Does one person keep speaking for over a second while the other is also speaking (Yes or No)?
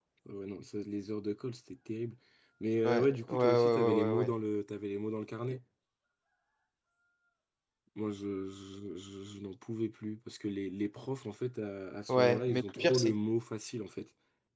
Yes